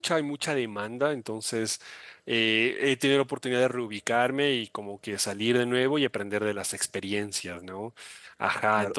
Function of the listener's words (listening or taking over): taking over